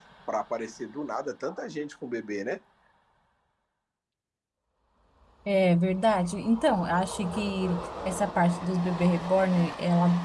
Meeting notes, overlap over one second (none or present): none